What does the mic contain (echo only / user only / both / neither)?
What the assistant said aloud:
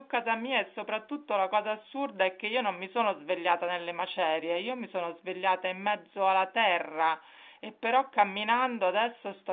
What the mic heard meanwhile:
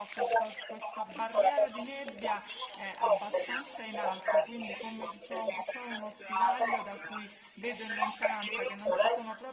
both